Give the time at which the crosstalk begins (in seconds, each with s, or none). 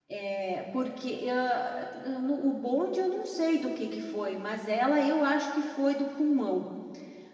none